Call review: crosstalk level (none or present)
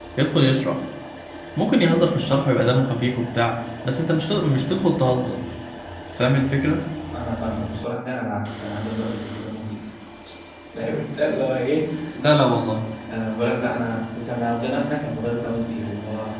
none